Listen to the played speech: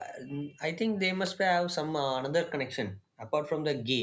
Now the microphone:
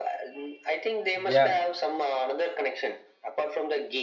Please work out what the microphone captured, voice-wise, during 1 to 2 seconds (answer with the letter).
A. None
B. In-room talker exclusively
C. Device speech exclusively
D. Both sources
D